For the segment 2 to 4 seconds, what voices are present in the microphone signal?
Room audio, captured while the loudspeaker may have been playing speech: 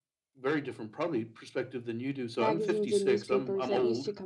both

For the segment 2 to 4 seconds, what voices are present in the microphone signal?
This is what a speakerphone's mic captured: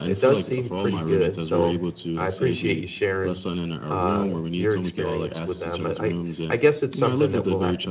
both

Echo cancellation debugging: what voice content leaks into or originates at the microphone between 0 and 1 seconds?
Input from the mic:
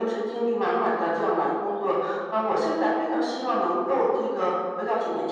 echo only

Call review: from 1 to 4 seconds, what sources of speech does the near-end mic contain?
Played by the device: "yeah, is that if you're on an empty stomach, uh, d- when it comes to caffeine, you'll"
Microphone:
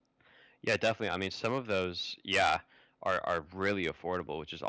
user only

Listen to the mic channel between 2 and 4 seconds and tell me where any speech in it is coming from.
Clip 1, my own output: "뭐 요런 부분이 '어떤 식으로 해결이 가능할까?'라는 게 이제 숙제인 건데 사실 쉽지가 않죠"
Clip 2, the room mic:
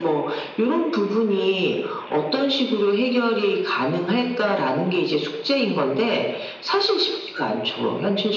echo only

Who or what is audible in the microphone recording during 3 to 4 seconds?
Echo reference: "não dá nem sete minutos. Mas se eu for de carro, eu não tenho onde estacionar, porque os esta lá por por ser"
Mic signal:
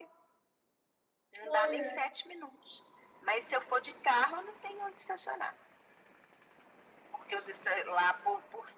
echo only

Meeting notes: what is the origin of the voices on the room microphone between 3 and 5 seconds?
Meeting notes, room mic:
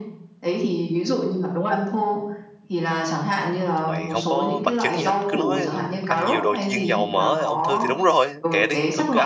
both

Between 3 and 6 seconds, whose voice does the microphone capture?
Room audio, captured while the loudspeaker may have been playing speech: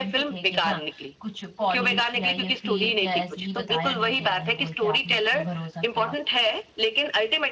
both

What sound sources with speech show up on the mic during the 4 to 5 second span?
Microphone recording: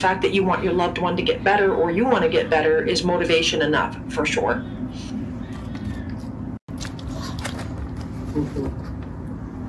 echo only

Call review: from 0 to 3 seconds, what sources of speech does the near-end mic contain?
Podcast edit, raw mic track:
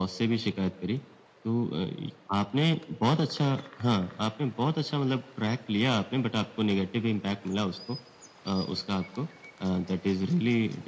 echo only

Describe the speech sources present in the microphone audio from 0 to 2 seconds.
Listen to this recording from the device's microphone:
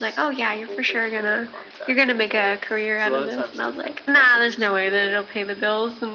both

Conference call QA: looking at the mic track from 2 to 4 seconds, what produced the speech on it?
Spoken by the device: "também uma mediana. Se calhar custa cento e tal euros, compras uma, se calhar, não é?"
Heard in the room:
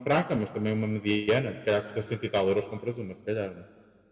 echo only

